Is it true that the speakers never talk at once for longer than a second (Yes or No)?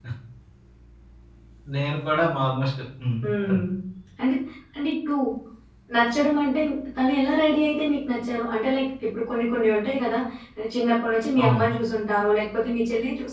Yes